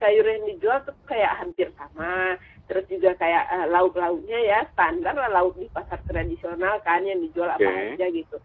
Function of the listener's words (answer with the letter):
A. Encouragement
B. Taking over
A